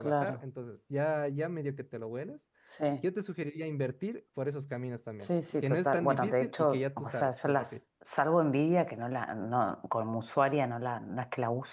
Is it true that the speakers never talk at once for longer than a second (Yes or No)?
No